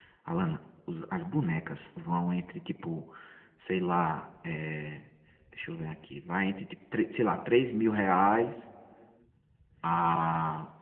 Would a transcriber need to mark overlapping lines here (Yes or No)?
No